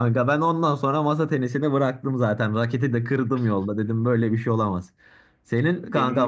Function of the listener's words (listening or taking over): listening